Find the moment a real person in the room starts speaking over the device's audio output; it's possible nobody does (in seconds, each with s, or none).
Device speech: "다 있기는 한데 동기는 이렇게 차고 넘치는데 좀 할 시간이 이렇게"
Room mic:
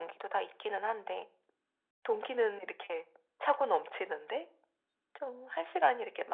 none